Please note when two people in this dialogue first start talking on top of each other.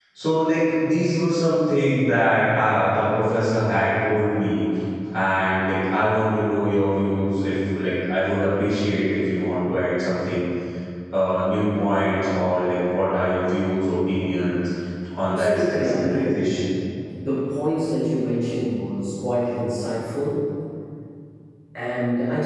15.2 s

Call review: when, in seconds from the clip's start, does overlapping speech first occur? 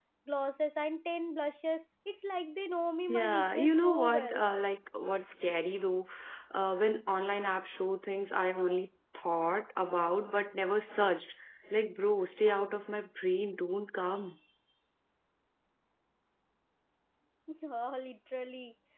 3.1 s

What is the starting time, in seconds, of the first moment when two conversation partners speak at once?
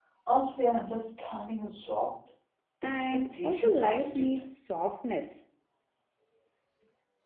2.8 s

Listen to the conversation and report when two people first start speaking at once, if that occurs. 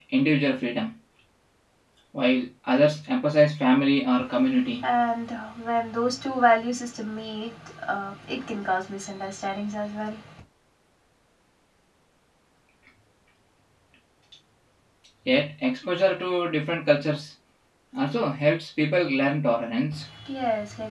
none

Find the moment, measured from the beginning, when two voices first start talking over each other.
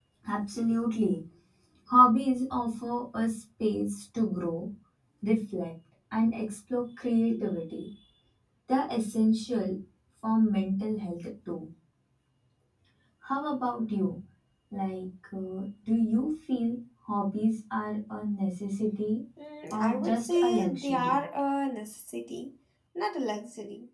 19.7 s

